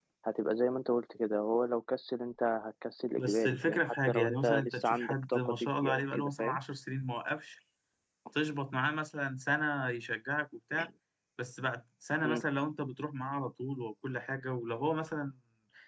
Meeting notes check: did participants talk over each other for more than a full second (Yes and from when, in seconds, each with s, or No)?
Yes, from 3.2 s